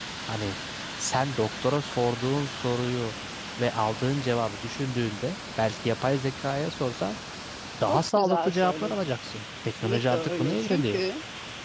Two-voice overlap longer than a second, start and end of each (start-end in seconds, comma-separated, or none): 7.9-9.1, 9.7-11.0